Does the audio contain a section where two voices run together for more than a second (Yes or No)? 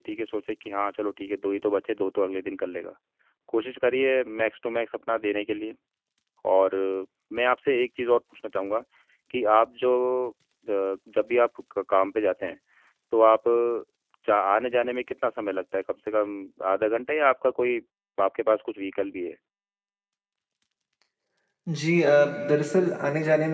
No